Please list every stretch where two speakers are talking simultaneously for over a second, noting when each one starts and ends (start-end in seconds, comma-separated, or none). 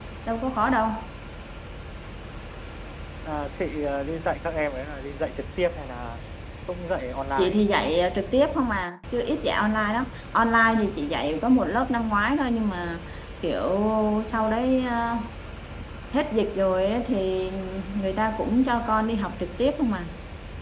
none